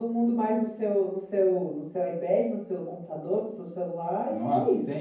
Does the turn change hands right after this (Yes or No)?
Yes